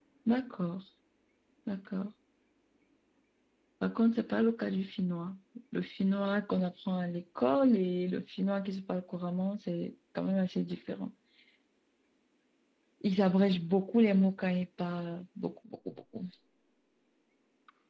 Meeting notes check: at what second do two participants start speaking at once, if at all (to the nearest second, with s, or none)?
none